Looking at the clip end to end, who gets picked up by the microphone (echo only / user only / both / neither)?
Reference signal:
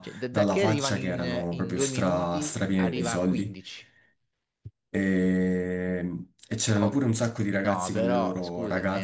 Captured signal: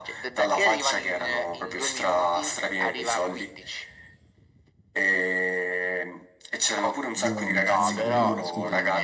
both